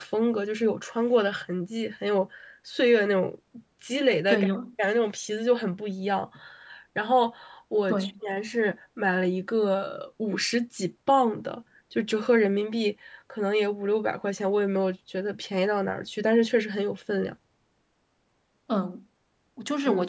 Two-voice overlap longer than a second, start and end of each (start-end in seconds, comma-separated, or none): none